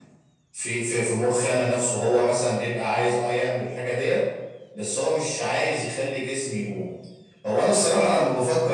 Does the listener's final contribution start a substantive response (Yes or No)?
No